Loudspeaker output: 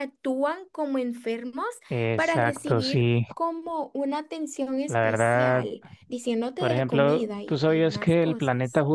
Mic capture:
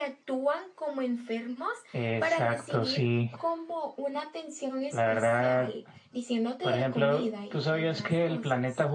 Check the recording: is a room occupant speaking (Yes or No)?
No